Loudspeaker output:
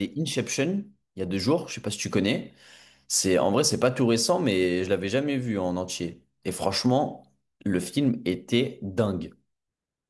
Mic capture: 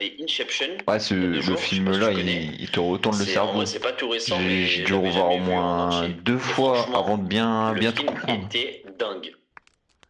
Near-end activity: present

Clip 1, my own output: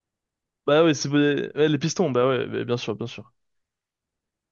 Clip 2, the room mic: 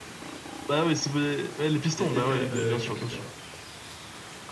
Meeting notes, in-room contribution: present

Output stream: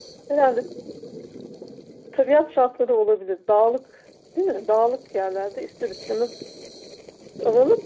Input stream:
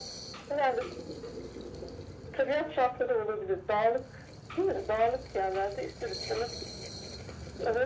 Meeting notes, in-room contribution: none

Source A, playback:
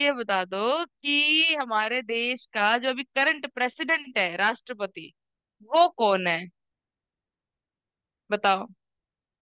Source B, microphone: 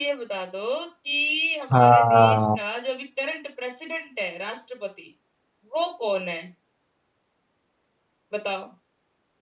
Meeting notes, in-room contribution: present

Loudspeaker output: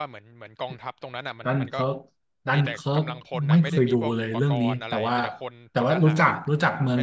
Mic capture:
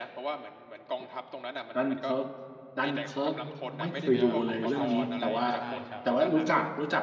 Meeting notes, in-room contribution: present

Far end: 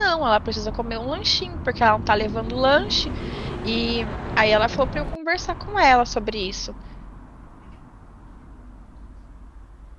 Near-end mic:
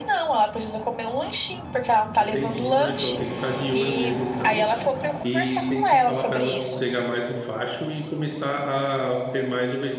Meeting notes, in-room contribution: present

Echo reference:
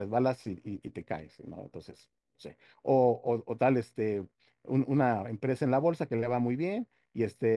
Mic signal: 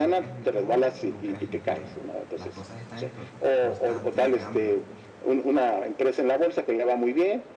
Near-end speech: present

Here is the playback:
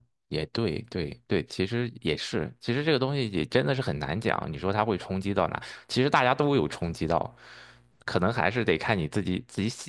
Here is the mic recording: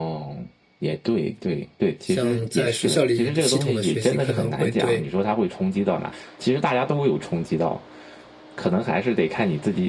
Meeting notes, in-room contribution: present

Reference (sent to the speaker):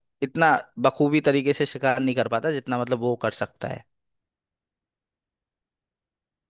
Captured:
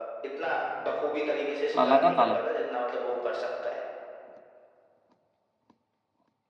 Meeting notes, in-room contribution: present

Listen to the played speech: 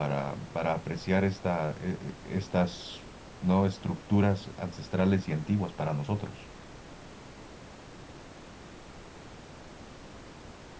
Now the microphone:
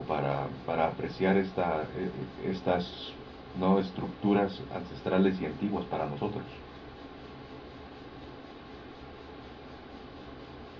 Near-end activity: none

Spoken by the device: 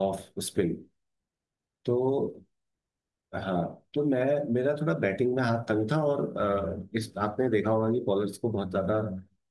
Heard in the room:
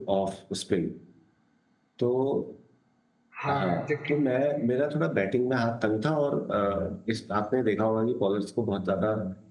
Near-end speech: present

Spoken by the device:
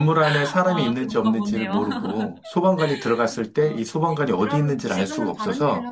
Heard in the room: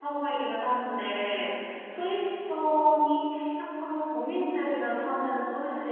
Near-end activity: present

